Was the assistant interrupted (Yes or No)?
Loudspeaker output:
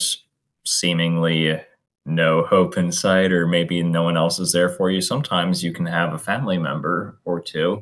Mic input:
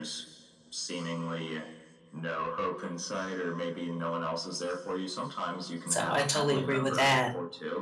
Yes